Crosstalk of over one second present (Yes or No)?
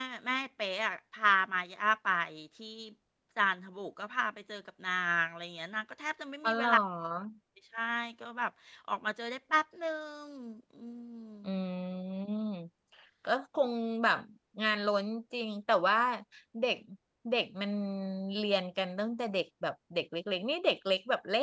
No